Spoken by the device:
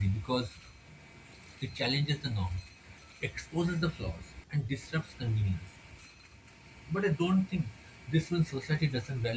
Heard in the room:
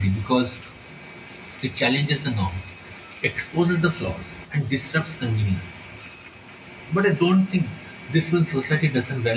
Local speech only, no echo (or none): none